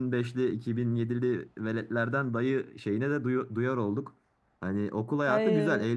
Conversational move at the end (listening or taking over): listening